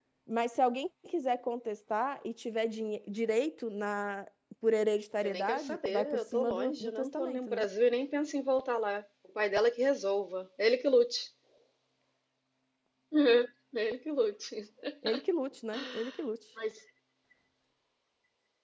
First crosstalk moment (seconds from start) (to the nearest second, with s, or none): 5 s